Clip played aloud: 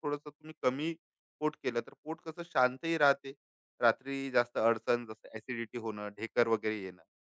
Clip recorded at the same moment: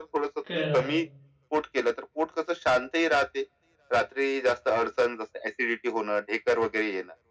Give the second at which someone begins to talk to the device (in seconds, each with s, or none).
0.5 s